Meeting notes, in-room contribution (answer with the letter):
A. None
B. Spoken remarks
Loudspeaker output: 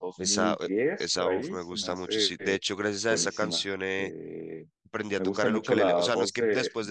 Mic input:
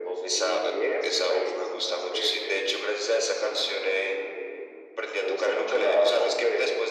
A